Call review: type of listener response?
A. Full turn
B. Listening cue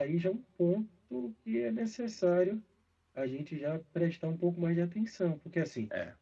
B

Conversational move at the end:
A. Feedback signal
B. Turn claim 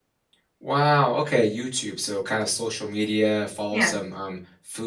A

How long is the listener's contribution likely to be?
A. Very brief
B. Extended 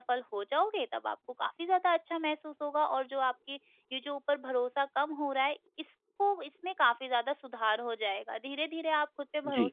A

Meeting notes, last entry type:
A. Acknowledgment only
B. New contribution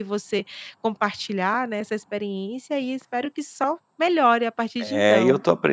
B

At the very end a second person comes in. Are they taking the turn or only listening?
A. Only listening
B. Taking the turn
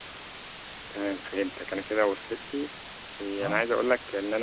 A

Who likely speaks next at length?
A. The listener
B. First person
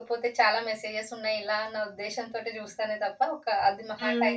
B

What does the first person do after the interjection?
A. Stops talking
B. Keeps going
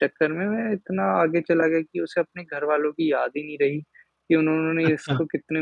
B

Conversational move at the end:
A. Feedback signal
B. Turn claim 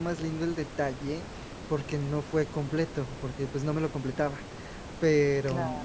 A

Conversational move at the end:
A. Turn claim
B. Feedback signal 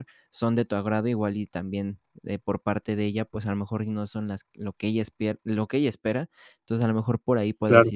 B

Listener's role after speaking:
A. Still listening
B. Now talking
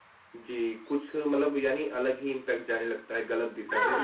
B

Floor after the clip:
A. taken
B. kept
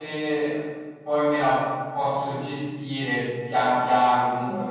B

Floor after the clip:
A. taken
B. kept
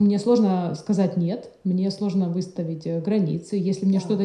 B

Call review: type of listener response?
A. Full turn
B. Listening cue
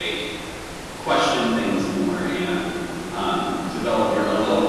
B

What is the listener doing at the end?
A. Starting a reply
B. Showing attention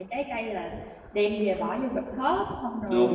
A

